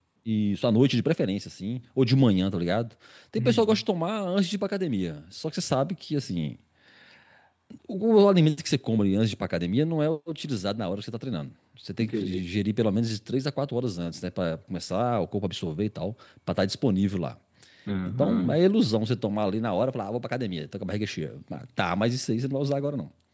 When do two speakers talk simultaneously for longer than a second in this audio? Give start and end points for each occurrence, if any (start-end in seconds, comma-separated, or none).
none